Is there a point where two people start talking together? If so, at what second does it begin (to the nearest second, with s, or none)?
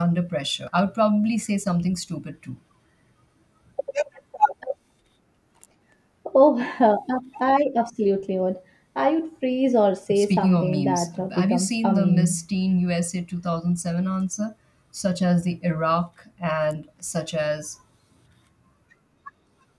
10 s